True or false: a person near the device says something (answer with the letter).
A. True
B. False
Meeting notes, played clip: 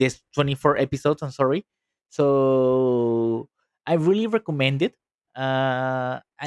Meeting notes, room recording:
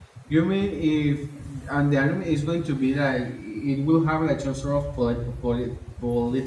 A